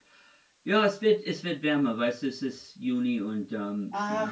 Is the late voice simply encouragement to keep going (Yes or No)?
No